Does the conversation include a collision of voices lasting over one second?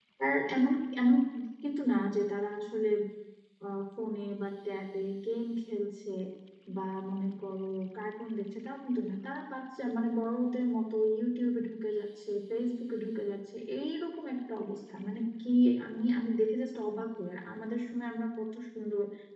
No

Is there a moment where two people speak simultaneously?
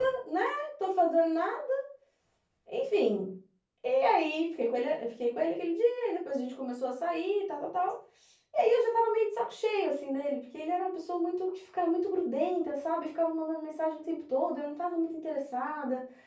No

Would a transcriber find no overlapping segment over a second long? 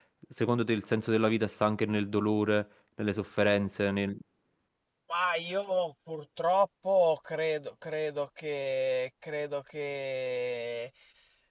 Yes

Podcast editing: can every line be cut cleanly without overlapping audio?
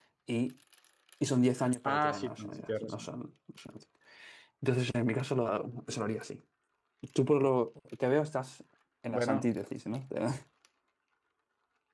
No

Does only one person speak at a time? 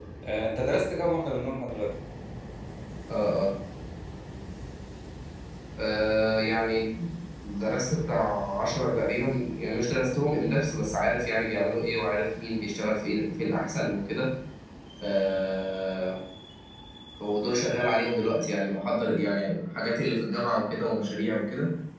Yes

